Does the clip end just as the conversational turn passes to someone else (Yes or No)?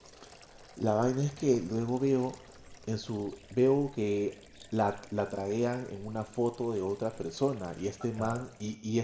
No